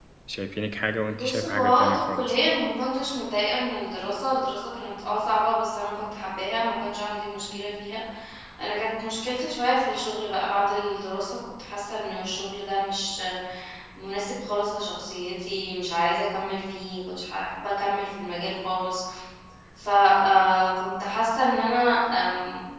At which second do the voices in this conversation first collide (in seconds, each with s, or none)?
1.1 s